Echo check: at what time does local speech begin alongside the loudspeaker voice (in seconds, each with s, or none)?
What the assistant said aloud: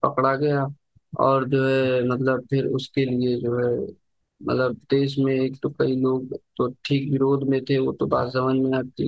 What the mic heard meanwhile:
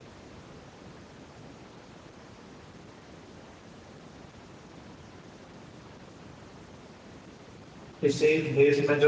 8.0 s